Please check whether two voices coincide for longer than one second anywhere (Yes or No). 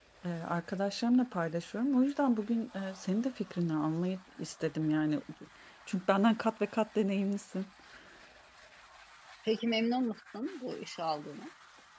No